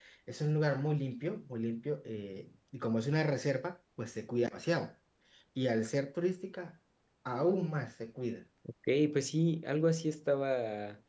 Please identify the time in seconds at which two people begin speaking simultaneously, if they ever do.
none

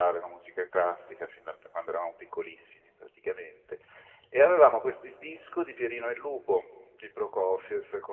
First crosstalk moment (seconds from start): none

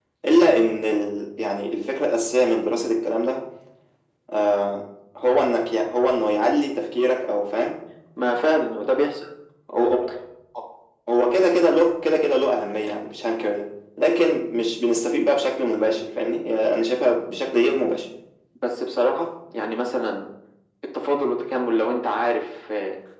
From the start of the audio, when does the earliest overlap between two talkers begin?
none

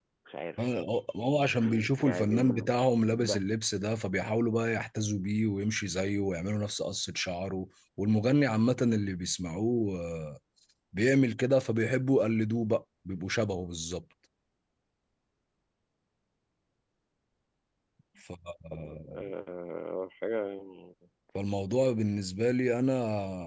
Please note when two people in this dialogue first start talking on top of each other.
2.0 s

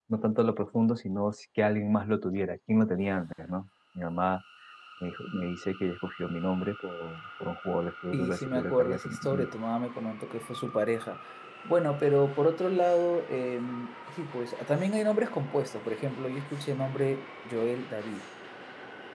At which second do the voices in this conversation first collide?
8.1 s

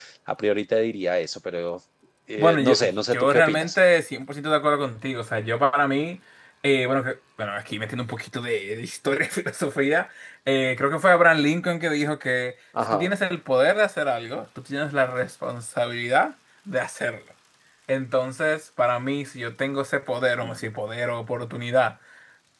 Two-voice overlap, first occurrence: 2.4 s

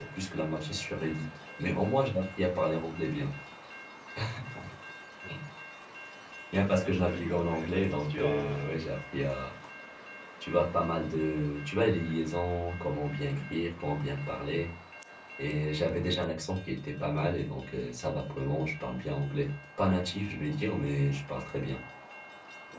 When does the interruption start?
6.8 s

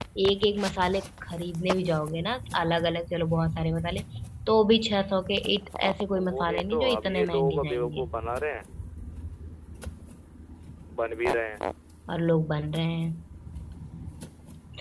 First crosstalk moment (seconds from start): 6.2 s

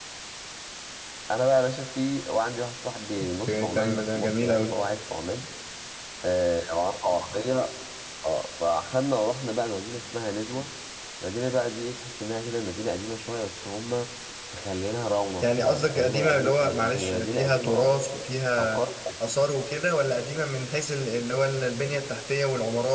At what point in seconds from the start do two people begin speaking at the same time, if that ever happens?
3.5 s

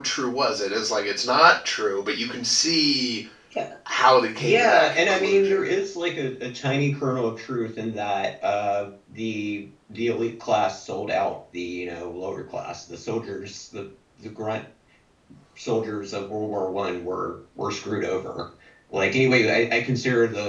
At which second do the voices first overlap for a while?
4.4 s

